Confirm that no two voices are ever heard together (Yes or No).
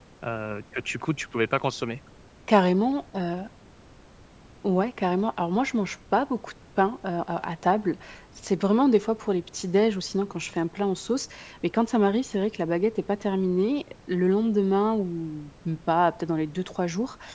Yes